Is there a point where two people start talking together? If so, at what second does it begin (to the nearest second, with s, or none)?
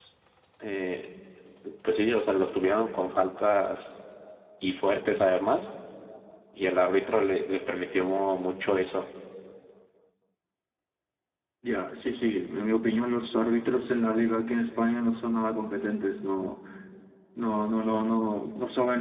none